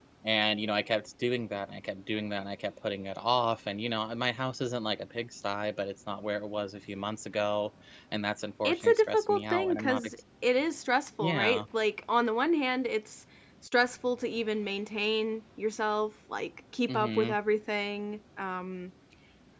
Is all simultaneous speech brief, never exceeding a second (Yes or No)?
No